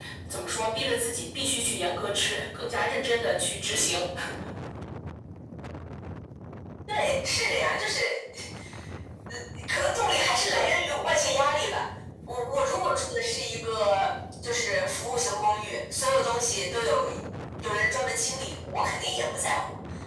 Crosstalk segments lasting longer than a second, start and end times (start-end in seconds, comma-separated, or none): none